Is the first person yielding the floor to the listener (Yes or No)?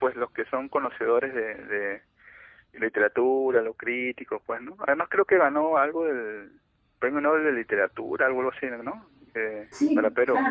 Yes